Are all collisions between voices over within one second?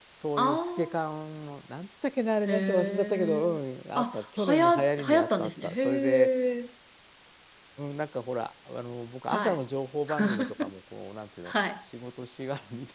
No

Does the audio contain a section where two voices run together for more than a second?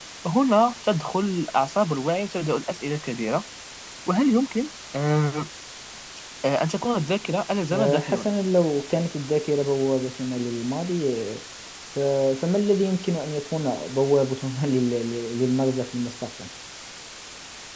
No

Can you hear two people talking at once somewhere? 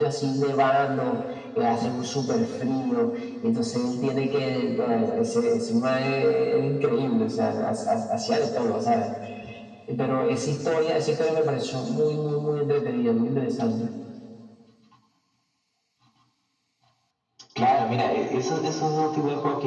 No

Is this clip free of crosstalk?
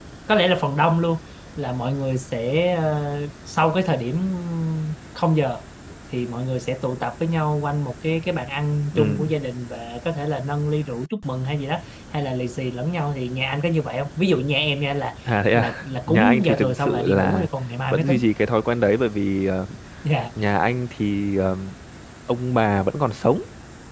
No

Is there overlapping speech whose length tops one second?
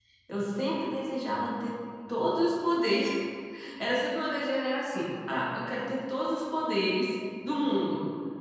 No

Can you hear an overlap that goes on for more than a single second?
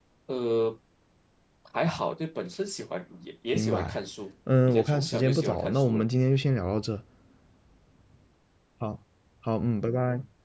Yes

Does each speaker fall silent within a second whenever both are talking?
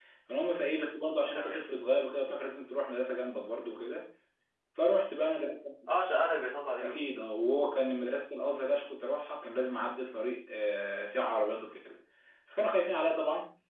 Yes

